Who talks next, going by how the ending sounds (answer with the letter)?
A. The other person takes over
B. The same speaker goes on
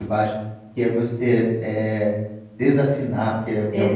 B